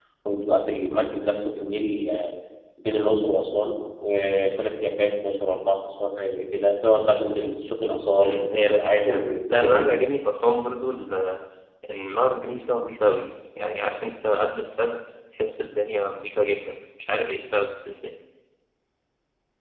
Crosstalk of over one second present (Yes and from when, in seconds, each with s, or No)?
Yes, from 8.2 s